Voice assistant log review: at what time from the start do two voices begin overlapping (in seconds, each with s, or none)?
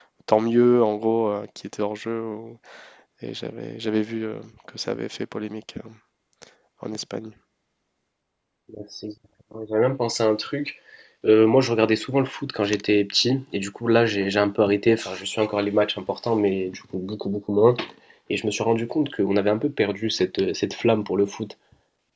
none